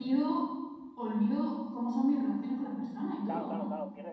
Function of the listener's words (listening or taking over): taking over